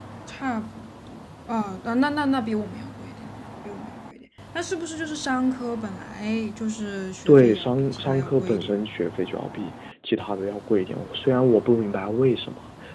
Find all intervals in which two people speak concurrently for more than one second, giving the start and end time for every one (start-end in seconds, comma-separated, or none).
7.3-8.8